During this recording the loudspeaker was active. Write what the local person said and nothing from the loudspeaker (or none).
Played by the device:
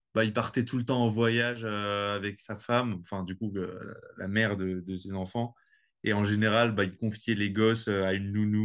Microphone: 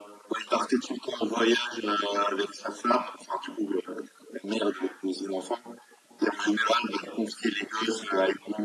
none